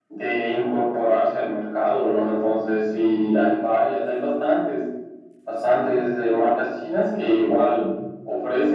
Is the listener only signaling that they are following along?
Yes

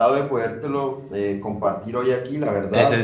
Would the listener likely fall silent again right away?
No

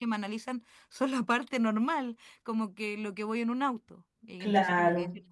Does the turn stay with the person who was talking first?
Yes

